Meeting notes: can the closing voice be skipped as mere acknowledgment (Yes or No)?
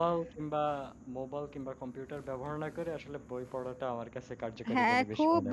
No